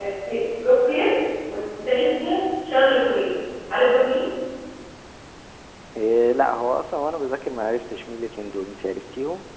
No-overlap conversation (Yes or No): Yes